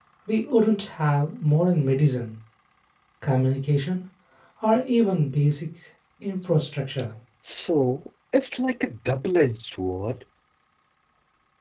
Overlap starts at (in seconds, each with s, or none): none